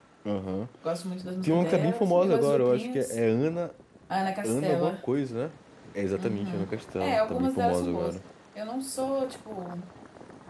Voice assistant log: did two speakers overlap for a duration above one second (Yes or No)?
Yes